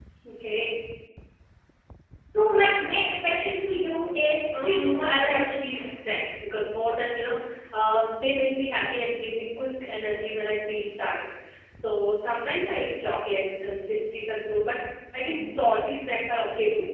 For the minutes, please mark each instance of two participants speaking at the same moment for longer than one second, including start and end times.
4.5-5.9

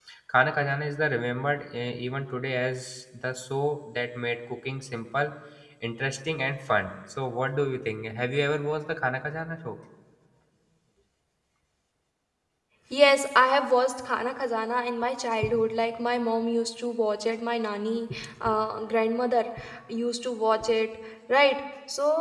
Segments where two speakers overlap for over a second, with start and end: none

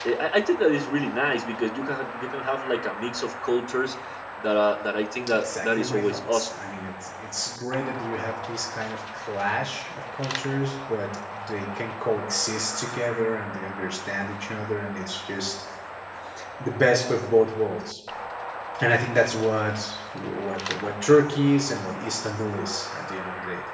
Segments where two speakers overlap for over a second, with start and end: 5.3-6.6

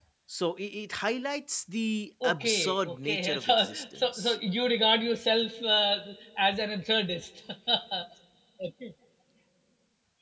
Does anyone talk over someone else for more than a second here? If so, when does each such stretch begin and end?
2.2-4.3

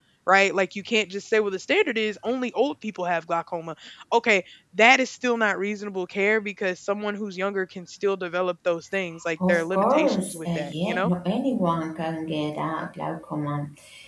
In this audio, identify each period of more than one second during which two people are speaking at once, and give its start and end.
9.5-11.1

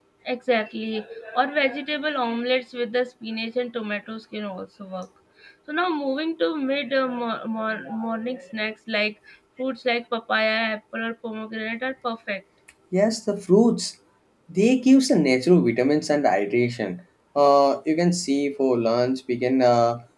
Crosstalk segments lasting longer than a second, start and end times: none

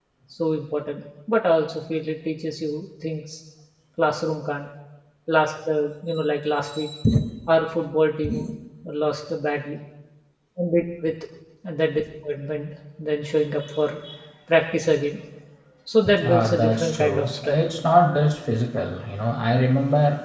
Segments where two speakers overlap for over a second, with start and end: 16.2-17.6

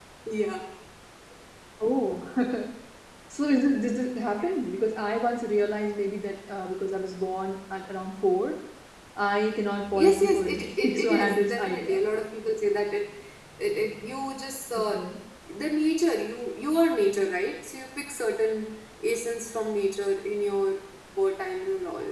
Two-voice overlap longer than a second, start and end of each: 9.9-12.0

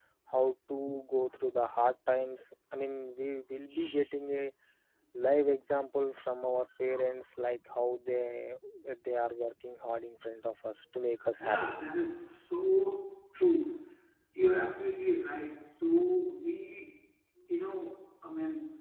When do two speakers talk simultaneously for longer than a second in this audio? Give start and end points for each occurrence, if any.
none

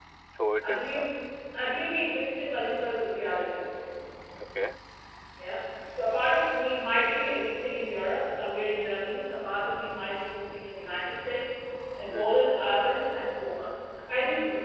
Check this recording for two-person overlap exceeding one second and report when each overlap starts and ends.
none

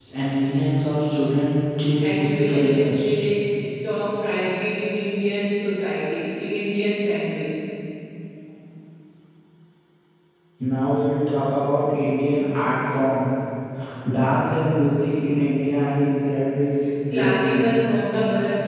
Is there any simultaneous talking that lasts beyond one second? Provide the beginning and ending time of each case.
2.0-3.2

